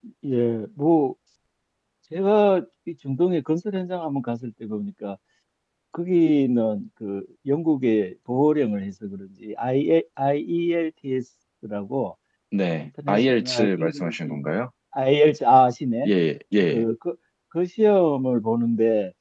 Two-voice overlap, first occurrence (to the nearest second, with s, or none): 13 s